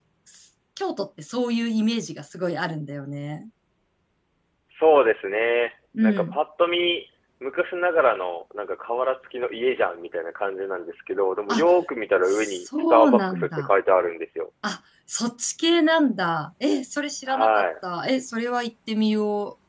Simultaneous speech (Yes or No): Yes